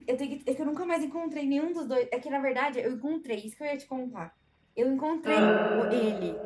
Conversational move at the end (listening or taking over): listening